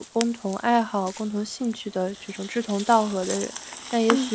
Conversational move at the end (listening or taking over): listening